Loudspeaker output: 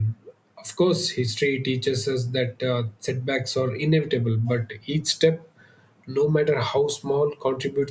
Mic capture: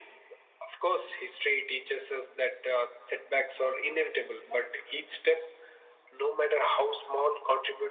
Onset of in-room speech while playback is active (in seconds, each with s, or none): none